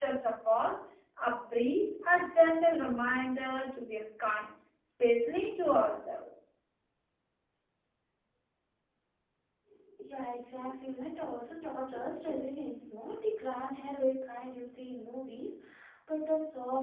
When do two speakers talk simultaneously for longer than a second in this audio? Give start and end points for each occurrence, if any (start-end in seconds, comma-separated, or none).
none